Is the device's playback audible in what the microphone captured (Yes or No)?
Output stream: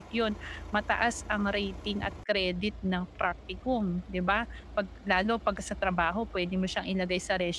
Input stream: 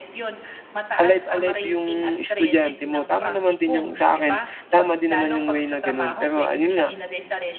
Yes